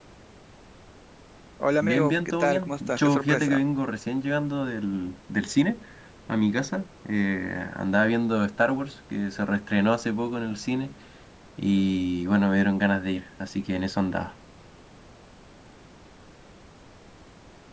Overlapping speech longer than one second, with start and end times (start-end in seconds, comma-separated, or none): 1.9-3.6